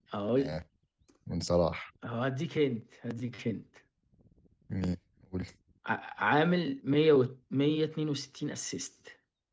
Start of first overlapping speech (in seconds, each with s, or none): none